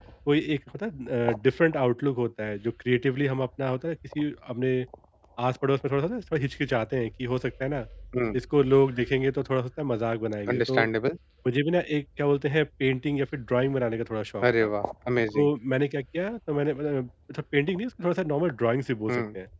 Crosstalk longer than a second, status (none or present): none